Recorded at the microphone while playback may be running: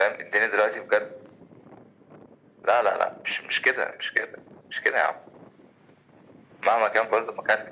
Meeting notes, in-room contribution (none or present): none